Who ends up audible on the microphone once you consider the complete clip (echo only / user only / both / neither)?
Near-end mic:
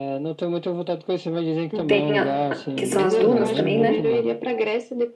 both